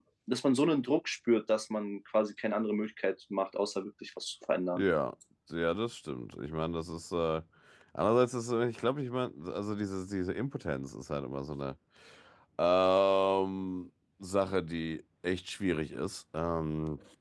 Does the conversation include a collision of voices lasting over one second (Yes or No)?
No